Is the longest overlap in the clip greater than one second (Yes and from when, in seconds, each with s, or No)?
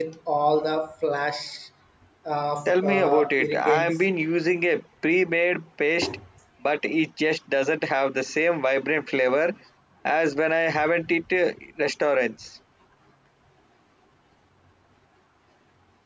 Yes, from 2.7 s